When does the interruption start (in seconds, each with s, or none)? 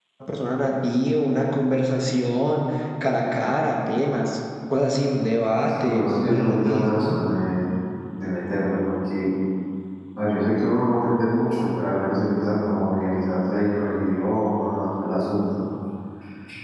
5.8 s